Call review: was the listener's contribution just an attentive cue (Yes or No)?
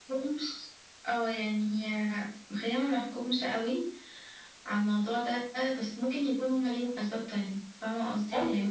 No